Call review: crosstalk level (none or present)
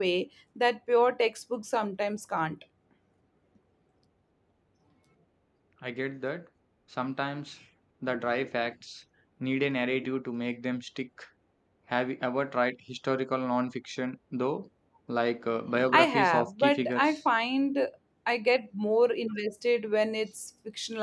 present